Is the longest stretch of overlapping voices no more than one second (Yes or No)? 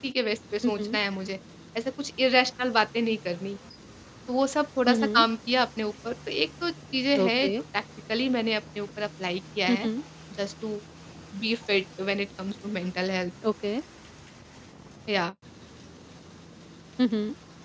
Yes